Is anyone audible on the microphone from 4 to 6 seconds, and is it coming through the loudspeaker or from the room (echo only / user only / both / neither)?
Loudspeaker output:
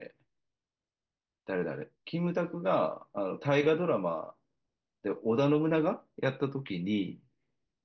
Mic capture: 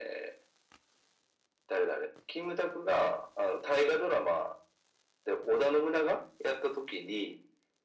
echo only